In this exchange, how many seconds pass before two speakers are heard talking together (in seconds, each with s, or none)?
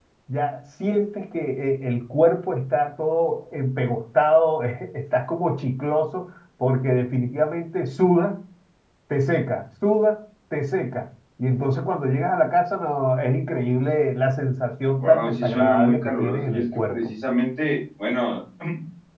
14.9 s